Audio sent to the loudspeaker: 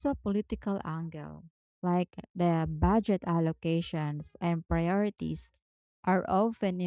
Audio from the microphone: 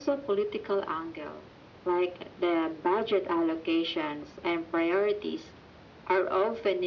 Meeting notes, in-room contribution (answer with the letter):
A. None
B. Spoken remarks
A